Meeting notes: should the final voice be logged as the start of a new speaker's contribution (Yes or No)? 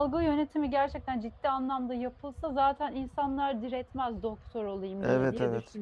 Yes